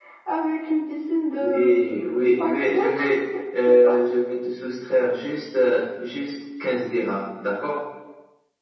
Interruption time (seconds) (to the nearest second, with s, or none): 1 s